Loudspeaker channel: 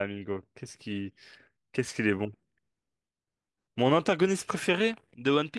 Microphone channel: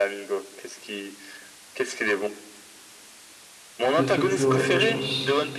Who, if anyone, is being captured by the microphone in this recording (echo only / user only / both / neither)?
both